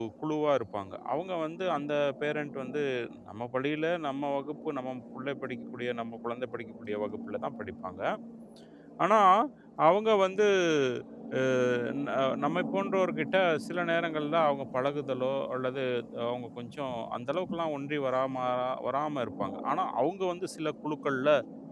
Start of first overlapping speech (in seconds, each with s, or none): none